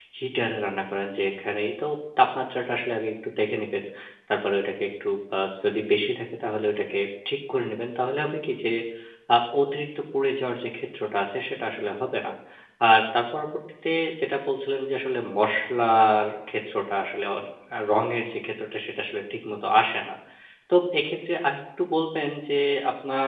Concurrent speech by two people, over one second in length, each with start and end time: none

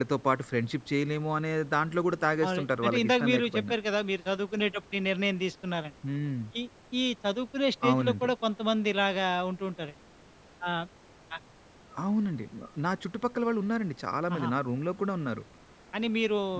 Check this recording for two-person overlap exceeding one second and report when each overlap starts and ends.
2.4-3.8

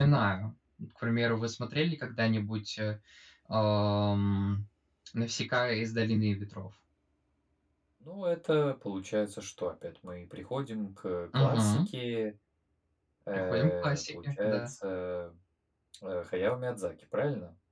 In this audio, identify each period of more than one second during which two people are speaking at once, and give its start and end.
13.3-14.7

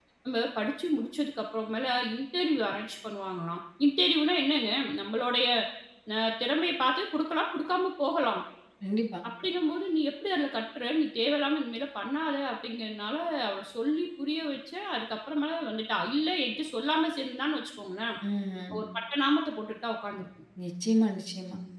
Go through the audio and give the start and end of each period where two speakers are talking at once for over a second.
none

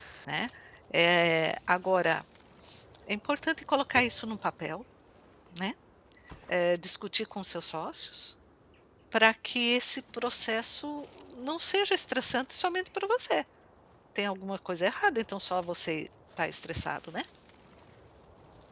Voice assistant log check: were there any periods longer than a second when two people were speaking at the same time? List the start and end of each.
none

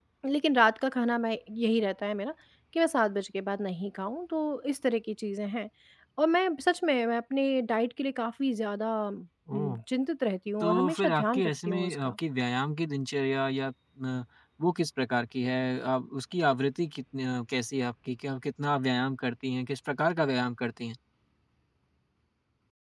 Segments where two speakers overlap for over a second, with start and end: 10.6-12.2

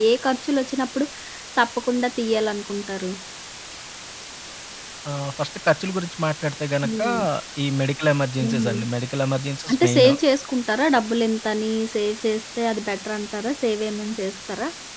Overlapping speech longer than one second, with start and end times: none

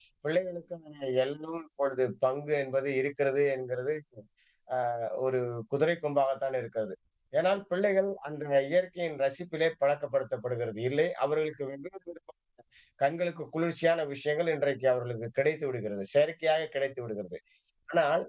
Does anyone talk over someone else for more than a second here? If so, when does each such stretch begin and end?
none

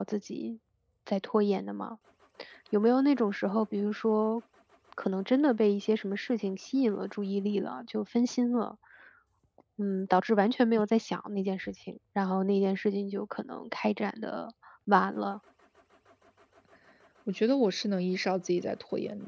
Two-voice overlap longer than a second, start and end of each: none

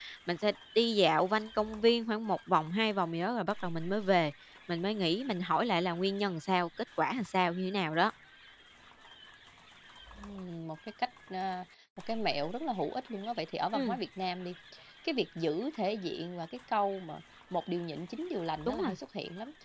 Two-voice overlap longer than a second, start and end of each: none

